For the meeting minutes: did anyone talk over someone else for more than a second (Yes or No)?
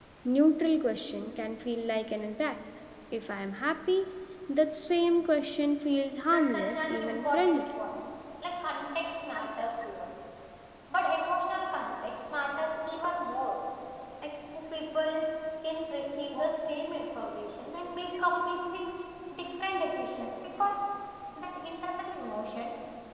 Yes